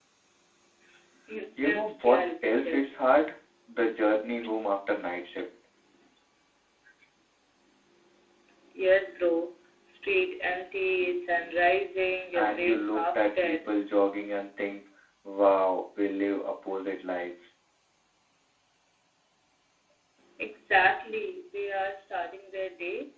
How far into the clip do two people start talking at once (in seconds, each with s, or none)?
1.6 s